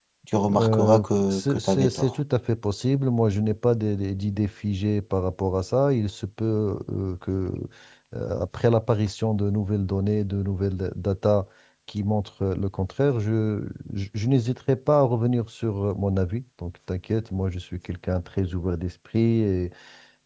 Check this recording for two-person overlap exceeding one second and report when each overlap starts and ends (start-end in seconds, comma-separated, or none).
0.6-2.1